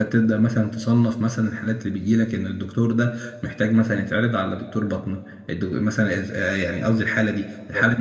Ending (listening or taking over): listening